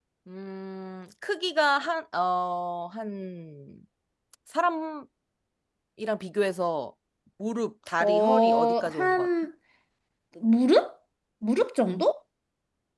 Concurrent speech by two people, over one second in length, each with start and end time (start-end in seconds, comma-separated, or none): 8.0-9.3